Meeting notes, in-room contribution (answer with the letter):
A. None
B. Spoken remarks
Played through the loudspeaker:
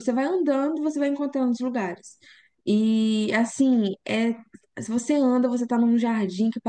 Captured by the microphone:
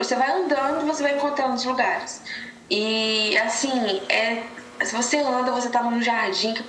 A